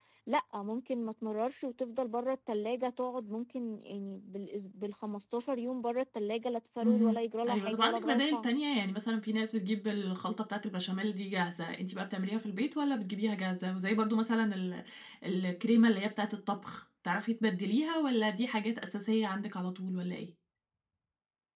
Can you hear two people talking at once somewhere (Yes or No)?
Yes